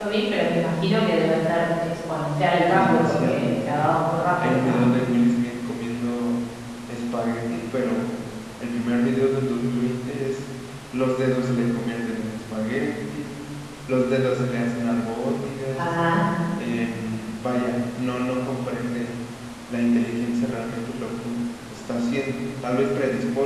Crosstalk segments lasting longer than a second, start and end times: 2.7-4.0

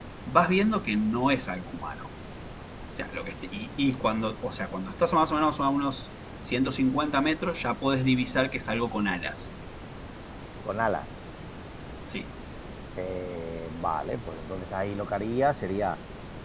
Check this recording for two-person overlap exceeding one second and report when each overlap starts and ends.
none

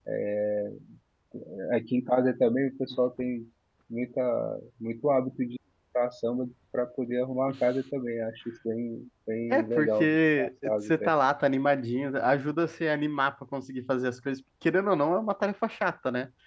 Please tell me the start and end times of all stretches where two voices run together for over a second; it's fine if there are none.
9.5-11.1

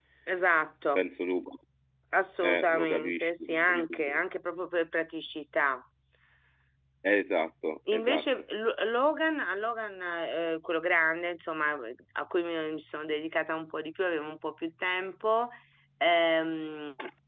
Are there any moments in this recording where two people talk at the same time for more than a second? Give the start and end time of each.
2.4-4.2

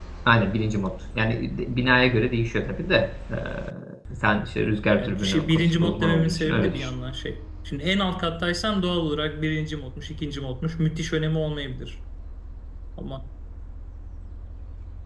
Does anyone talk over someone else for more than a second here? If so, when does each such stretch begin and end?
5.0-6.9

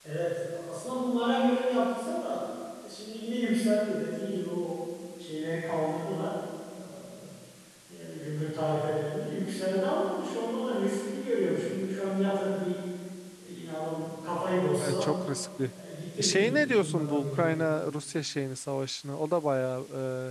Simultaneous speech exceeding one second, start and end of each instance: 16.2-17.4

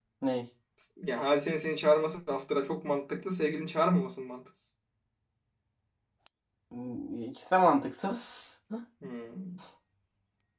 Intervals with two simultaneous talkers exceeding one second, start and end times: none

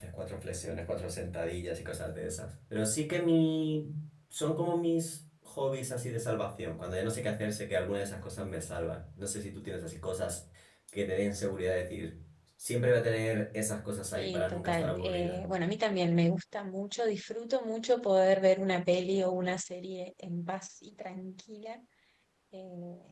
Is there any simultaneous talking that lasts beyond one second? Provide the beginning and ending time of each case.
14.1-15.4

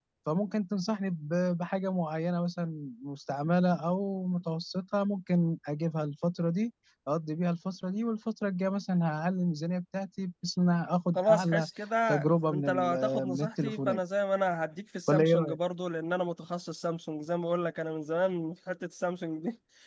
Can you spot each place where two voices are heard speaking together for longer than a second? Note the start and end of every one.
12.4-14.0

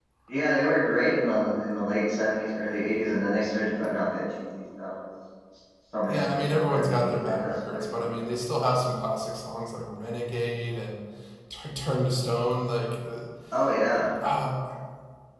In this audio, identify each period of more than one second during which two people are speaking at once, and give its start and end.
6.1-8.1

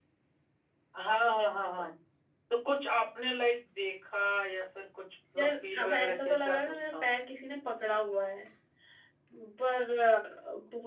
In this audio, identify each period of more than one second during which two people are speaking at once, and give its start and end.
5.4-7.0

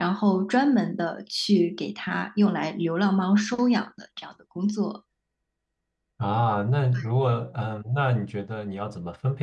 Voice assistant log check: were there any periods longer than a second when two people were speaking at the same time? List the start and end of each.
none

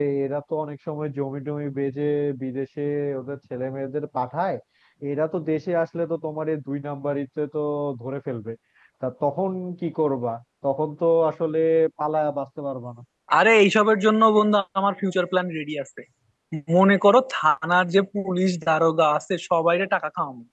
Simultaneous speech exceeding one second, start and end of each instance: none

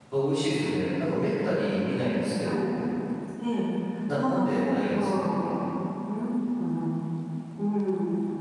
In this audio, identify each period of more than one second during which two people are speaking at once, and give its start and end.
4.1-5.3

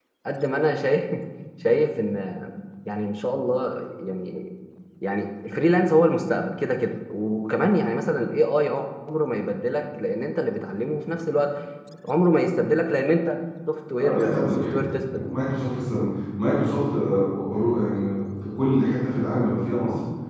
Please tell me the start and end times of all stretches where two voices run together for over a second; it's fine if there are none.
14.0-15.2

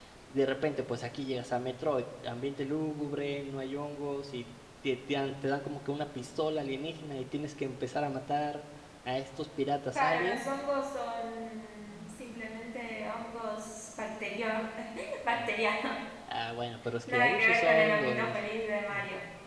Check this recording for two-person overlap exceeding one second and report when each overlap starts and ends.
17.1-18.4

